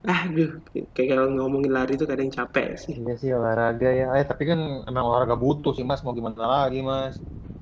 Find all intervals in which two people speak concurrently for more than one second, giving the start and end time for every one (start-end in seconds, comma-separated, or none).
none